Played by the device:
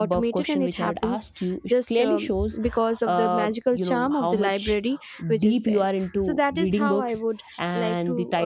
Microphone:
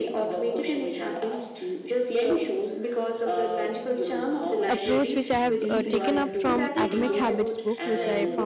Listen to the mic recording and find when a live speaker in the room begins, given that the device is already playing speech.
4.7 s

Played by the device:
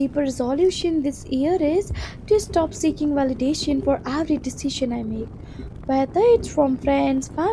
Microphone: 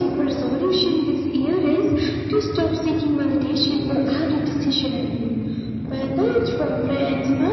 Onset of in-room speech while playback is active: none

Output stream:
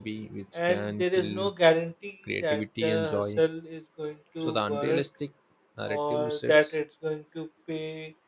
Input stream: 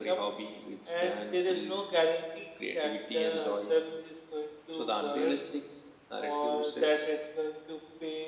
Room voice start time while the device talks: none

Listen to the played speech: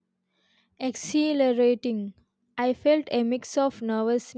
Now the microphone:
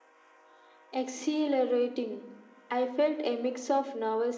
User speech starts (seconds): none

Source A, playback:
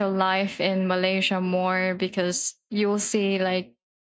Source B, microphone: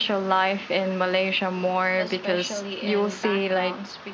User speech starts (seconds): 2.0 s

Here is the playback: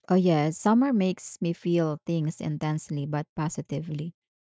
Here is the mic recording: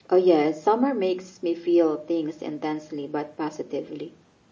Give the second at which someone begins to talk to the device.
none

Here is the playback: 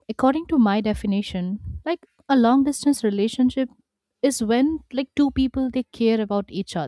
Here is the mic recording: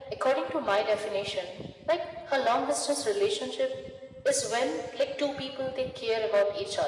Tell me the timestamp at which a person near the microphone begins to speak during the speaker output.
none

